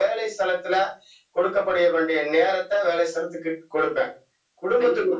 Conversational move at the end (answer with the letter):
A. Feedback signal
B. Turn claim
A